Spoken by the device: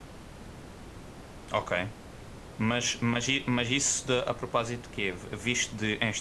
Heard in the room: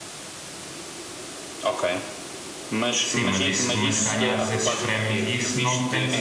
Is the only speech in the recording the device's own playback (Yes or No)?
No